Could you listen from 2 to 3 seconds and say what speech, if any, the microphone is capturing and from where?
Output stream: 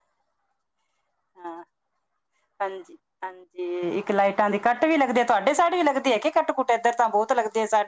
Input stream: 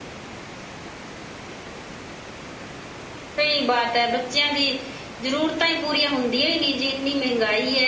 neither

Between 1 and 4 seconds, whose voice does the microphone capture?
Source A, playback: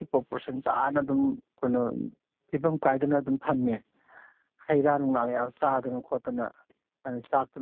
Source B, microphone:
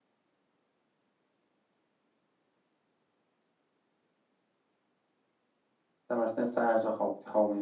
neither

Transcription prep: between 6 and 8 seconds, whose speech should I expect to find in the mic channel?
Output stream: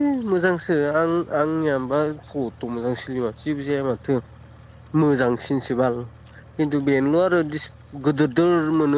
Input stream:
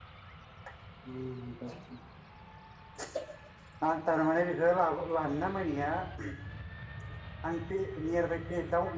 user only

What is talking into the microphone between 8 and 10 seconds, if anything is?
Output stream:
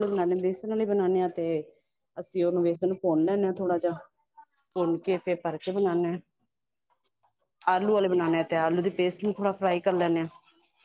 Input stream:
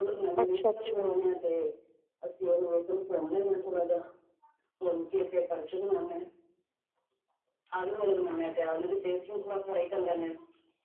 echo only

